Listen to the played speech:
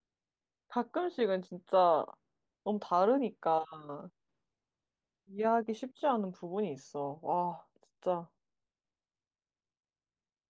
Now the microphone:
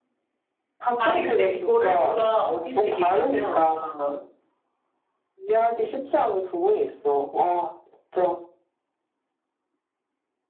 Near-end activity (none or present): present